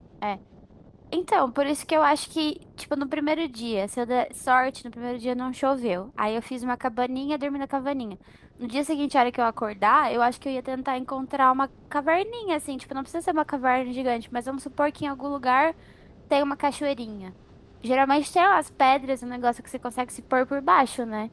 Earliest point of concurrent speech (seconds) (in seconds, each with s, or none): none